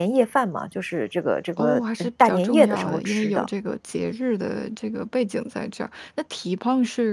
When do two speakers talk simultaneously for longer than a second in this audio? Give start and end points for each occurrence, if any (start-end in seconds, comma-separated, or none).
1.6-3.5